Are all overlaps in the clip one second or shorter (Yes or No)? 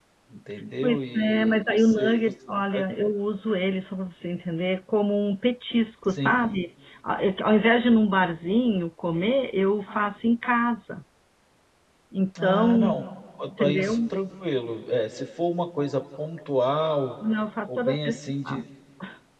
No